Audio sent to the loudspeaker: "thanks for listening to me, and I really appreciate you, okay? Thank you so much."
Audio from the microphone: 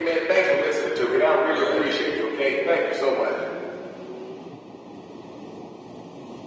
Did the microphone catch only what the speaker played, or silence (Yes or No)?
No